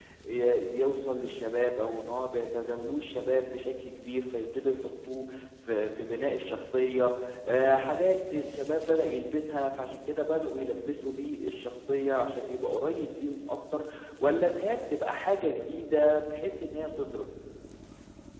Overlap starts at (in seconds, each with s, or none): none